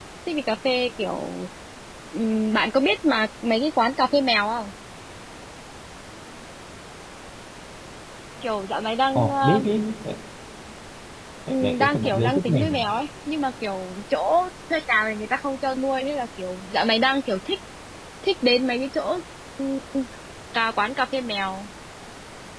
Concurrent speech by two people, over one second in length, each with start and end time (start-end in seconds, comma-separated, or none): 11.5-12.9